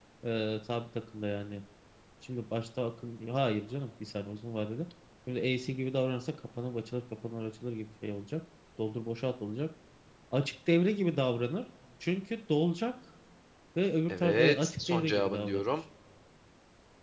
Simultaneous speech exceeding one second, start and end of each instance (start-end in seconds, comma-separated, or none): 14.1-15.6